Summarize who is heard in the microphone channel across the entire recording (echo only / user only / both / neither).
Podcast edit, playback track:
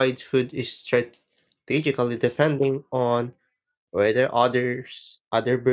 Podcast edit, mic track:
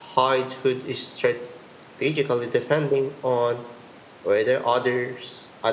echo only